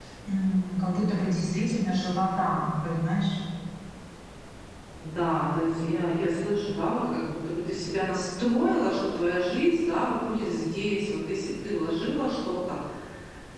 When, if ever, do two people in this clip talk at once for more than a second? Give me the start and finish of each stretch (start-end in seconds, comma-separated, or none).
none